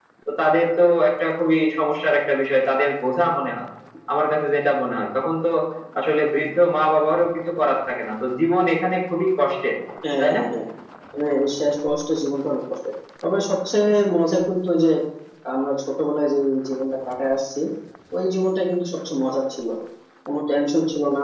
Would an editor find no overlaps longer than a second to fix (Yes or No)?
Yes